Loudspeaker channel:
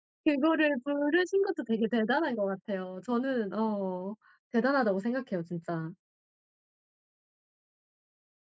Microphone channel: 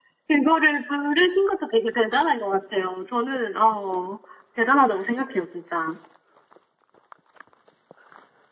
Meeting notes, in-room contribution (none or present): none